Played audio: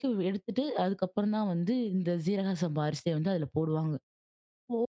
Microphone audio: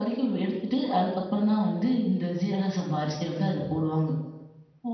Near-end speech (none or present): none